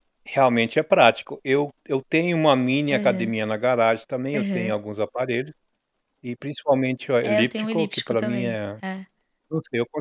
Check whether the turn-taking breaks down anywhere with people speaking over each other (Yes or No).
Yes